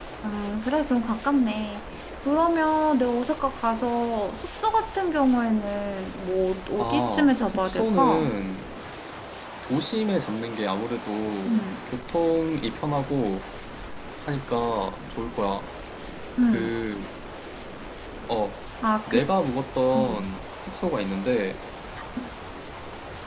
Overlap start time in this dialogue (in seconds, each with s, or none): 6.8 s